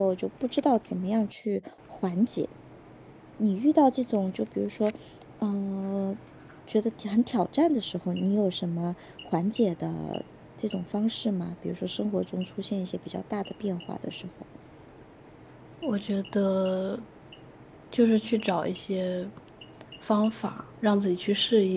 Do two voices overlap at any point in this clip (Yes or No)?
No